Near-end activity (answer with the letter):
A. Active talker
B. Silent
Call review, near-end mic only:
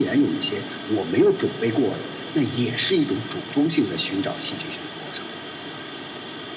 B